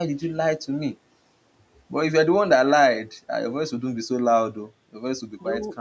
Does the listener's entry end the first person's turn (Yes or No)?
Yes